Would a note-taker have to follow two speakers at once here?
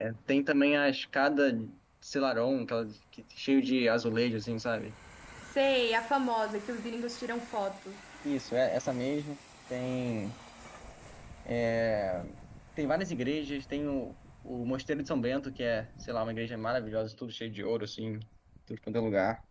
No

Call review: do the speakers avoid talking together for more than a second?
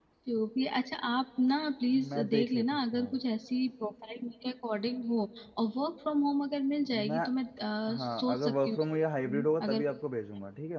No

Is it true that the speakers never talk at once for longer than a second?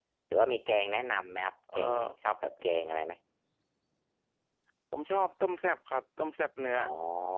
Yes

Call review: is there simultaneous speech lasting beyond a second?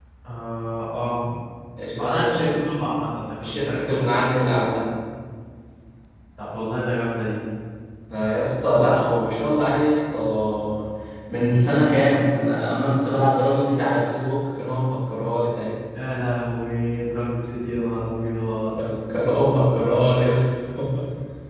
Yes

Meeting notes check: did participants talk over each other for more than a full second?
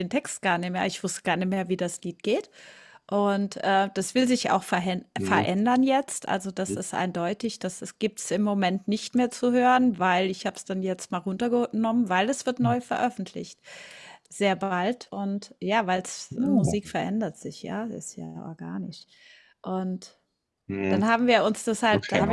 No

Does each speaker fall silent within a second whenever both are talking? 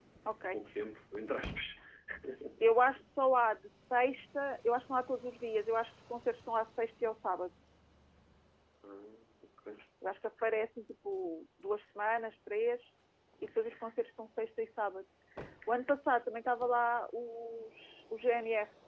Yes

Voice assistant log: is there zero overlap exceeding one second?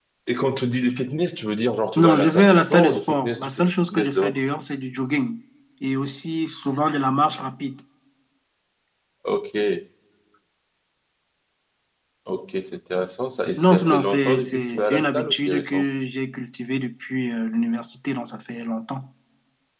No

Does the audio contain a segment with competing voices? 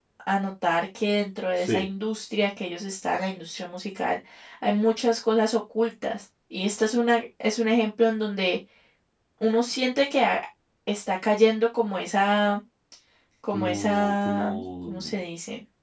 Yes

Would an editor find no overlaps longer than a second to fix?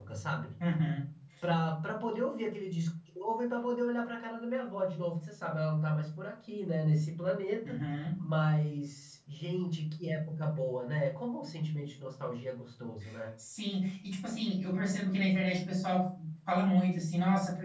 Yes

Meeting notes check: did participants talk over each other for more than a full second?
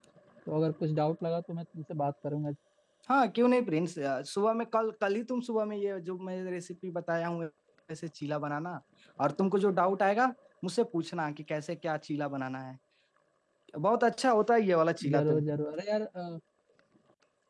No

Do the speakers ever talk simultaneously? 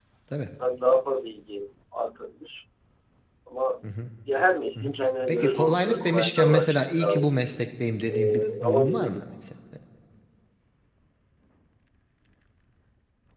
Yes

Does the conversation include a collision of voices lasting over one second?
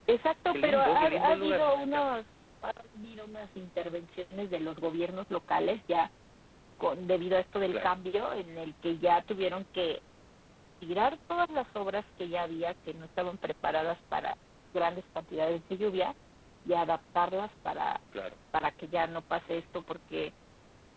Yes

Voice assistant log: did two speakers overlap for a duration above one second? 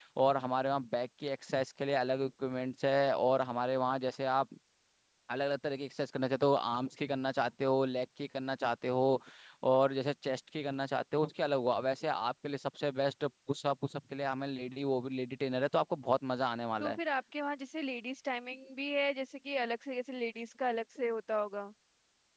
No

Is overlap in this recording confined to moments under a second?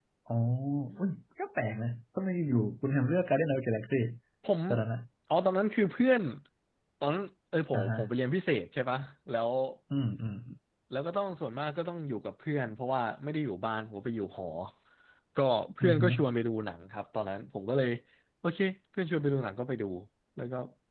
Yes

